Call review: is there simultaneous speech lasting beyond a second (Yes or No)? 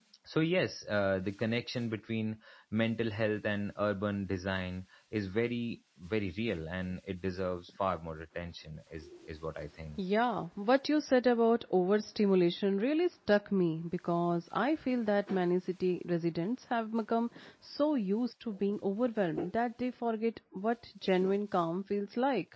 No